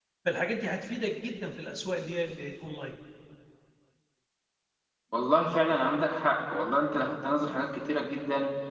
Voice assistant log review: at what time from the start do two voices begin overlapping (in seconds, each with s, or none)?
none